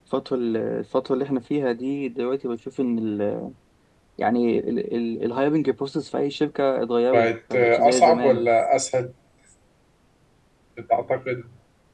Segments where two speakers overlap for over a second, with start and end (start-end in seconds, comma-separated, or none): 7.1-8.5